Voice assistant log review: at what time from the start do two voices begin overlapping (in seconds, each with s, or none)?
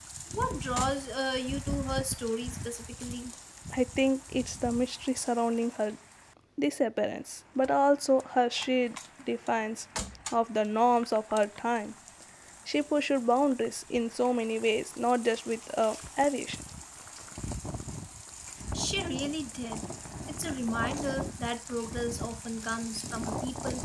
none